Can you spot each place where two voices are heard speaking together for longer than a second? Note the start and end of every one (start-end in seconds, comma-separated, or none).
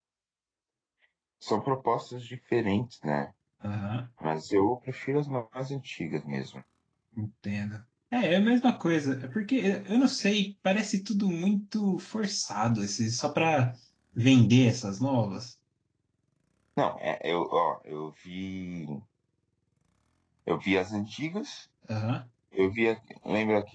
none